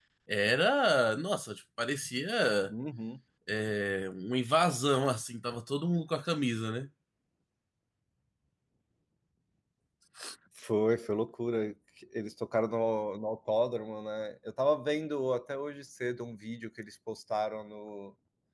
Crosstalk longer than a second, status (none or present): none